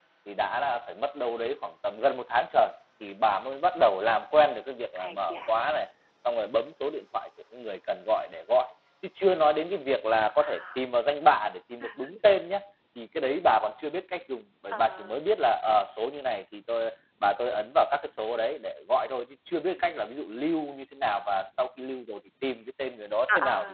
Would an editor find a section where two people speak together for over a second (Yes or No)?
No